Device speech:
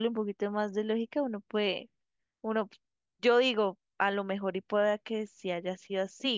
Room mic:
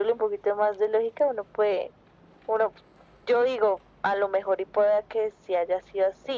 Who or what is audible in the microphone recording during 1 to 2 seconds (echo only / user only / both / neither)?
echo only